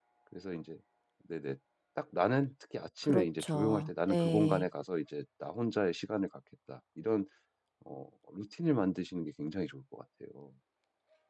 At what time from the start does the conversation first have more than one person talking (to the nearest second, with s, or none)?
3 s